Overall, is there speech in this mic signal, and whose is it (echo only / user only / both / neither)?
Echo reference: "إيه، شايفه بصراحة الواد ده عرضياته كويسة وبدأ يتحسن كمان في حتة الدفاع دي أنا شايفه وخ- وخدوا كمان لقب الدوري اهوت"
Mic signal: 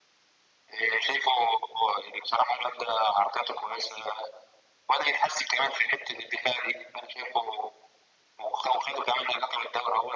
echo only